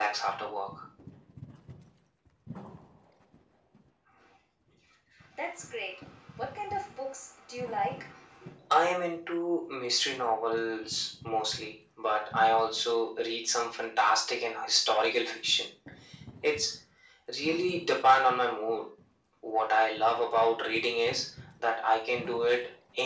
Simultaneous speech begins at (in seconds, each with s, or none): none